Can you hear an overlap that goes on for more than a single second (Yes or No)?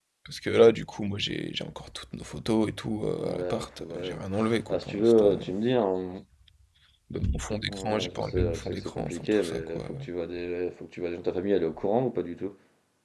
Yes